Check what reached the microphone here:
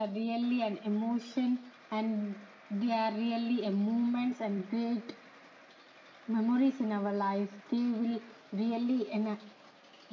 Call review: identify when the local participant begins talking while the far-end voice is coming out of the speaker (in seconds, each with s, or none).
none